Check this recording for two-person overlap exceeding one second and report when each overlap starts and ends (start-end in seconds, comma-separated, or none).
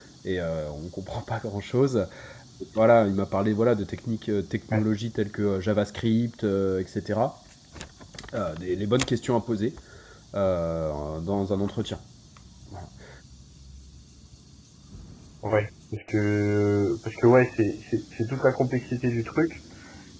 none